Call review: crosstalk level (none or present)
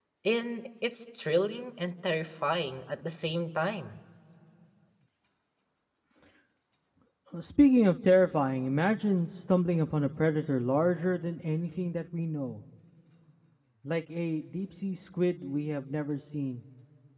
none